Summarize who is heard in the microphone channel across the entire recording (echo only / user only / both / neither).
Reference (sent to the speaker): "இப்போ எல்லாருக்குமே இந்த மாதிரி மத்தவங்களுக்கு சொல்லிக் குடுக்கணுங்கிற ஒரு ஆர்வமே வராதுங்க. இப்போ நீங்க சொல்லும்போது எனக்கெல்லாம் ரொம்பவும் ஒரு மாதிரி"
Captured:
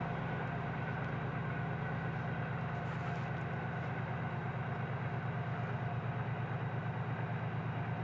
neither